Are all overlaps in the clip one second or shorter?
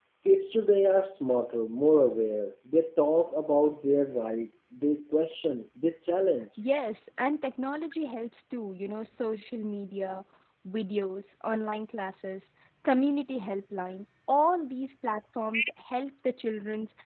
Yes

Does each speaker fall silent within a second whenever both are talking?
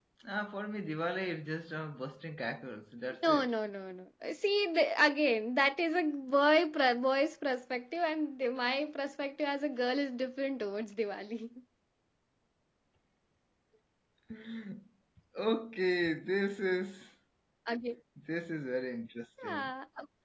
Yes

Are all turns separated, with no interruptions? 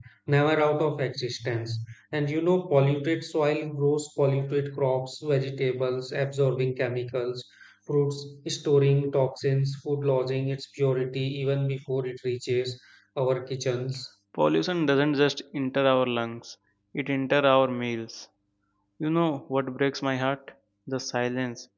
Yes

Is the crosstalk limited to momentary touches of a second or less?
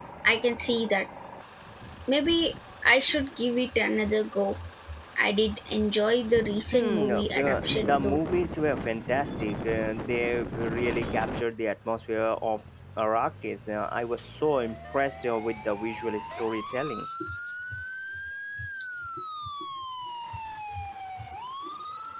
No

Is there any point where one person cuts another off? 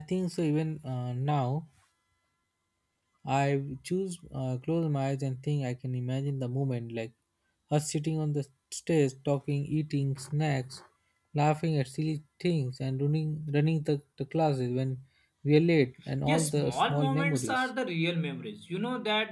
Yes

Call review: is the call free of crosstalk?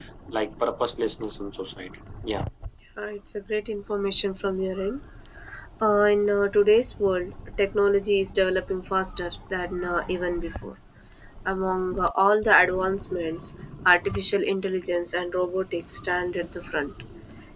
Yes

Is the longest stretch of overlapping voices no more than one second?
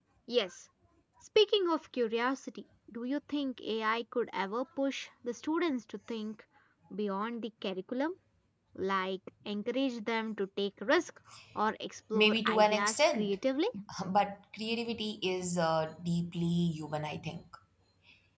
No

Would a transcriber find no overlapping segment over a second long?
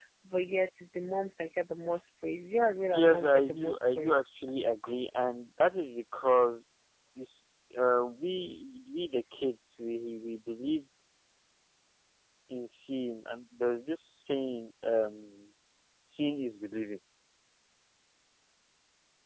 No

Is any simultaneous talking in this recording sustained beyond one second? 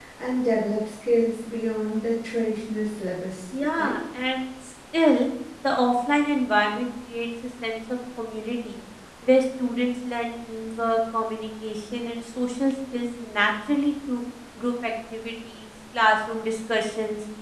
No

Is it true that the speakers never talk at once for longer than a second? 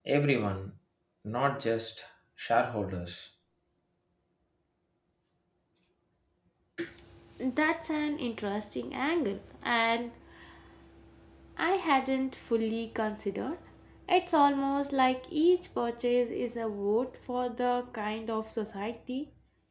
Yes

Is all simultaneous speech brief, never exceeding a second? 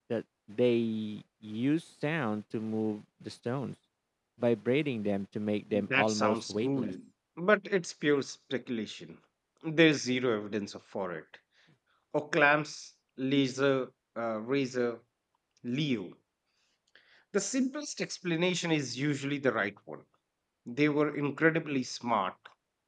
No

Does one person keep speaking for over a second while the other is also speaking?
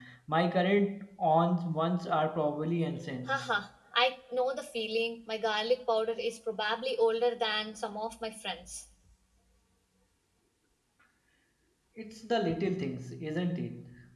No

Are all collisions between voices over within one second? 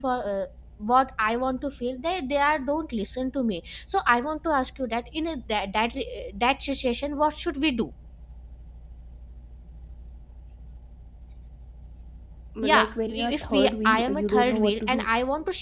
No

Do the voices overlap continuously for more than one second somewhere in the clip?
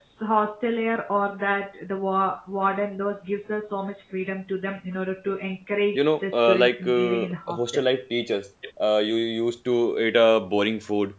Yes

